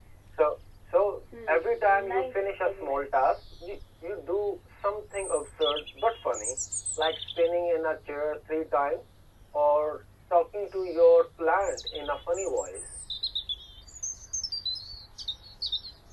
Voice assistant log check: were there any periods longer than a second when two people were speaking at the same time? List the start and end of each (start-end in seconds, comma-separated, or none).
1.5-3.1